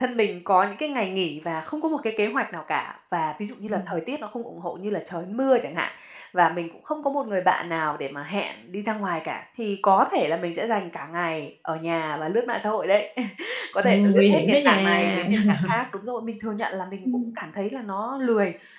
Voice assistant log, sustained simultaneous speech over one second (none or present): present